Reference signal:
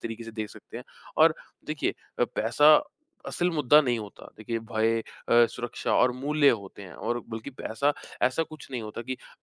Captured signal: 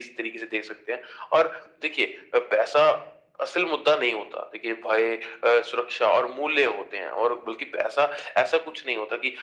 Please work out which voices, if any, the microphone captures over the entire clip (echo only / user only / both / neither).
echo only